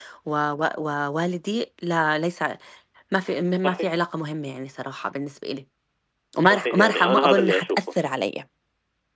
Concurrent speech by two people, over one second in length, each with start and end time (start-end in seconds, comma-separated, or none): 6.5-7.8